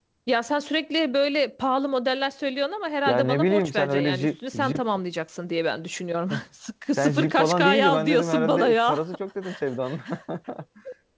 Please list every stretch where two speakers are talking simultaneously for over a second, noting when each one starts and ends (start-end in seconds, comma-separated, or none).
3.1-4.8, 7.0-9.0